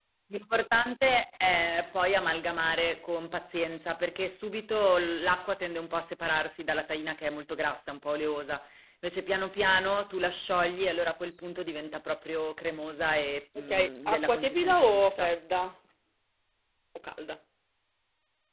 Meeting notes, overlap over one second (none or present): present